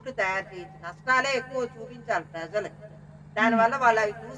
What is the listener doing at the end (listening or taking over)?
listening